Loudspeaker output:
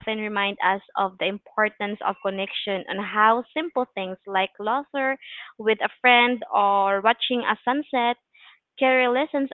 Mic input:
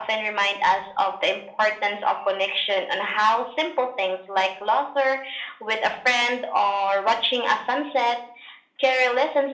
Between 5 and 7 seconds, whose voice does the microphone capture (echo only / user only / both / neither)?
echo only